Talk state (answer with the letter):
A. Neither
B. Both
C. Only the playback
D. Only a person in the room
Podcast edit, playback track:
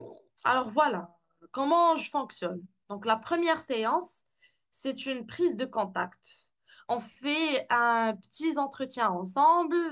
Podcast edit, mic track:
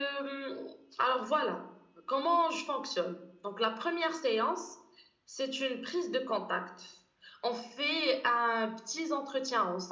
C